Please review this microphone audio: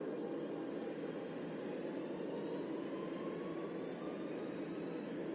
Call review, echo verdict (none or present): none